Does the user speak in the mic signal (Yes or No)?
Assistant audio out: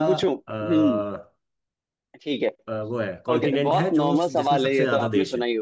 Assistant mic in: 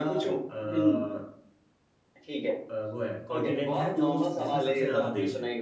No